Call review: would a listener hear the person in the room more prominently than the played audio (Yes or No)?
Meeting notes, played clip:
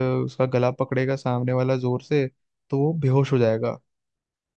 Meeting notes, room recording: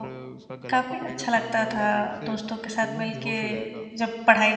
Yes